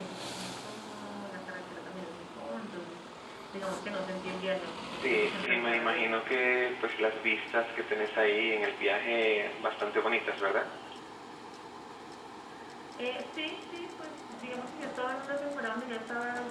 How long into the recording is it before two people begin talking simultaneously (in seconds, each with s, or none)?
4.8 s